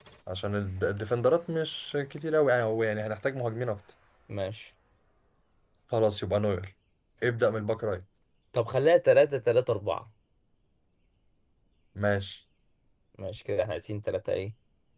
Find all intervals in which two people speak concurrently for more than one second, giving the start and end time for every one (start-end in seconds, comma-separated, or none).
none